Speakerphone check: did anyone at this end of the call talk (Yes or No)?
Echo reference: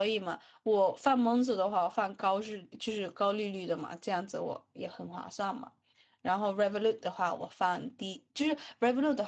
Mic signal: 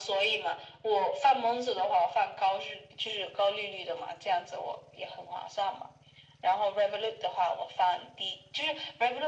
No